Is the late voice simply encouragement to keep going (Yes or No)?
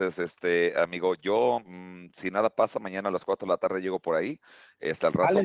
Yes